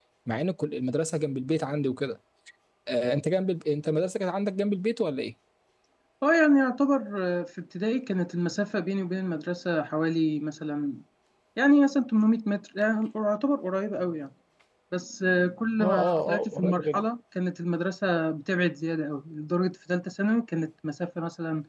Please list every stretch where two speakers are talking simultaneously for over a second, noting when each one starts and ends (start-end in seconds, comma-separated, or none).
15.8-17.0